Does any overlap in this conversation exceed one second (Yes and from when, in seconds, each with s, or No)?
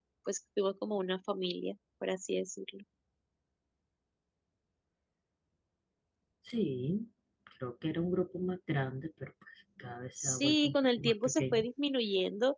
Yes, from 10.2 s